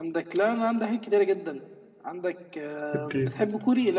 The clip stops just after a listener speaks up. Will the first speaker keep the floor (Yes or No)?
Yes